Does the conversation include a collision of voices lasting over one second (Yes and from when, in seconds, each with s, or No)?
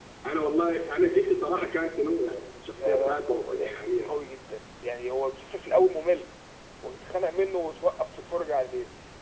Yes, from 2.8 s